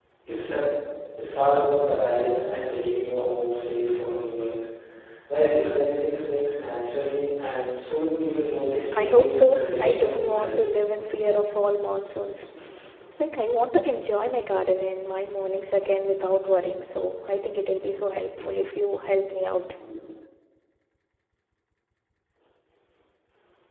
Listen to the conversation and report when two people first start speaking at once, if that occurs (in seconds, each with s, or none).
8.7 s